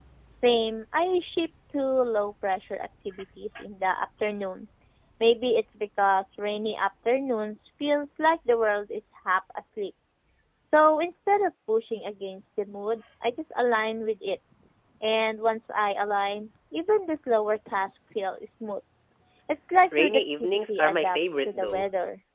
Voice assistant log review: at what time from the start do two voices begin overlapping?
20.0 s

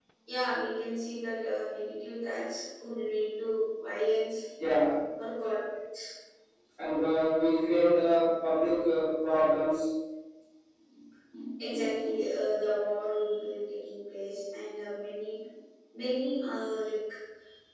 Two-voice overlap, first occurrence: none

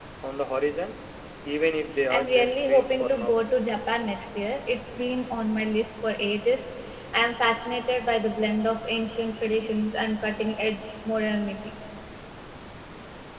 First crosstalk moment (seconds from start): 2.1 s

